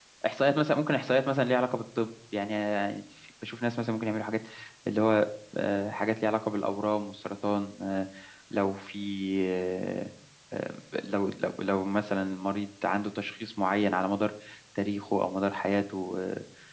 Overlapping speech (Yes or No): No